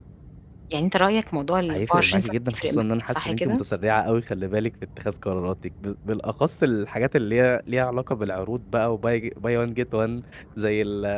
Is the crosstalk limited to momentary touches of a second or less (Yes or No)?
No